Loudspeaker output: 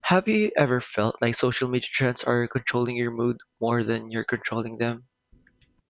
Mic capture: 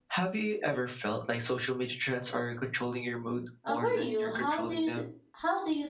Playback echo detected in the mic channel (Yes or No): Yes